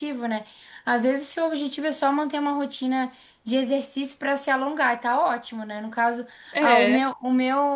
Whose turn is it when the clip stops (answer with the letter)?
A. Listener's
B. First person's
B